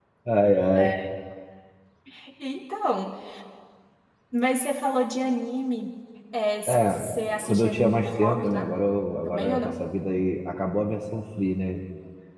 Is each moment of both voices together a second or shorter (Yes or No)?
No